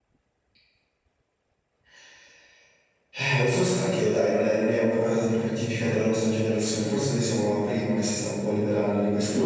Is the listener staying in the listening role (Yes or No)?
No